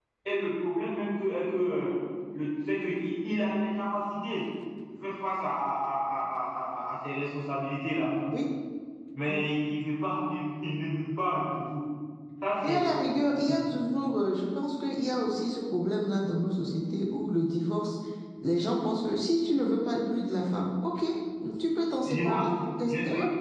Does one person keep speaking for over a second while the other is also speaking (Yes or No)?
No